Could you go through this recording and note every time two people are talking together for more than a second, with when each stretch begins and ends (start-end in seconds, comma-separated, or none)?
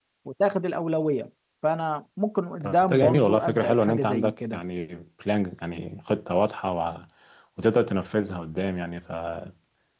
2.6-4.6